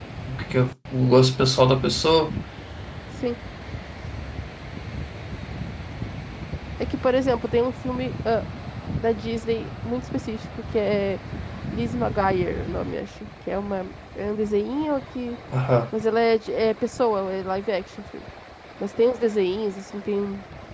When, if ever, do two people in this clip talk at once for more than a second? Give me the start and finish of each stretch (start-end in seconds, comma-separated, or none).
none